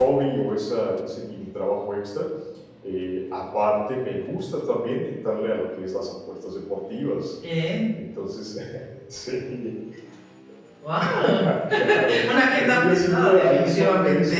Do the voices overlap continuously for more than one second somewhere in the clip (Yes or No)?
Yes